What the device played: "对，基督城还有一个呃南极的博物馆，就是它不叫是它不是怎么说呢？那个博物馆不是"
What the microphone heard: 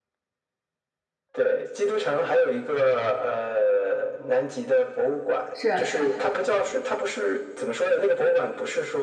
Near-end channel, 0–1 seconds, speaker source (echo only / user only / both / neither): neither